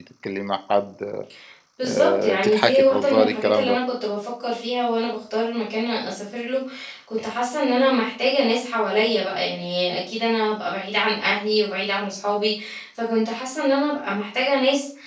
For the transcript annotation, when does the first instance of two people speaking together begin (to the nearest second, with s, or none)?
2 s